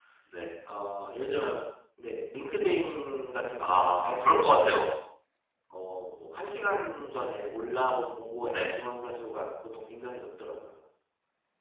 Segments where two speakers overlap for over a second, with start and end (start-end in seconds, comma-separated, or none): 3.6-4.8